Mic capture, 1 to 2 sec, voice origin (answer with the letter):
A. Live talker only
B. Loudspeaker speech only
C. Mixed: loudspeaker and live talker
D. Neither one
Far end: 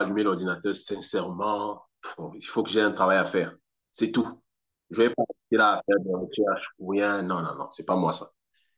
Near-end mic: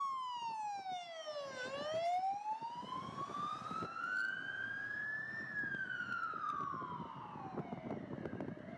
D